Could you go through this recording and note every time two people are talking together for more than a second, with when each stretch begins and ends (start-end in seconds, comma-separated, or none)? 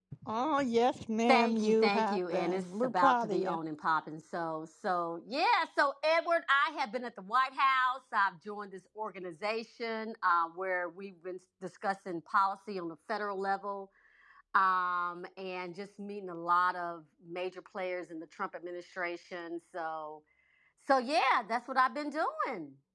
1.3-3.6